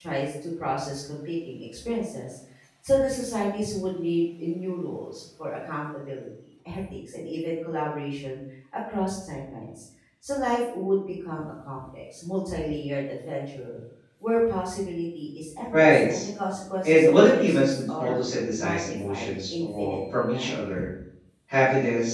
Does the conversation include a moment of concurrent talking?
Yes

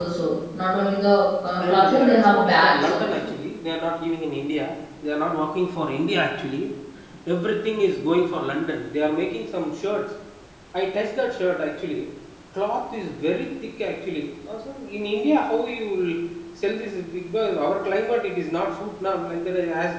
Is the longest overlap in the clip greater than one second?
Yes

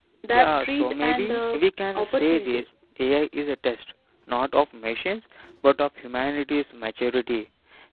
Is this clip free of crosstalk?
No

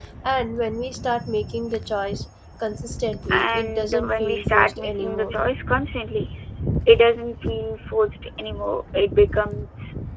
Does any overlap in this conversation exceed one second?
Yes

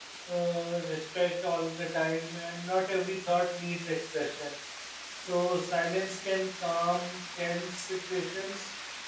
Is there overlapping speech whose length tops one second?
No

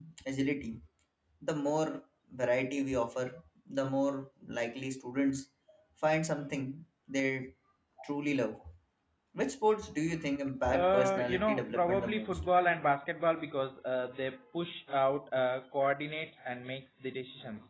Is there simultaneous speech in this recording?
Yes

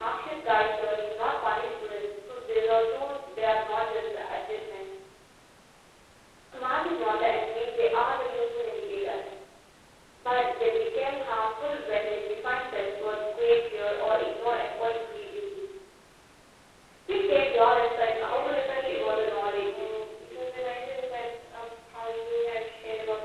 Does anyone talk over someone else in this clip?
Yes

